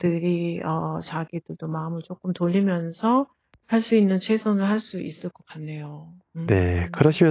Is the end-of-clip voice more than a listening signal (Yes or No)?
Yes